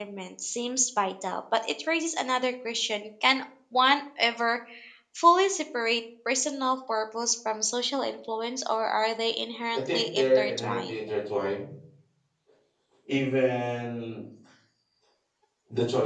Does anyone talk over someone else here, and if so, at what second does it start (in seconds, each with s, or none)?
9.7 s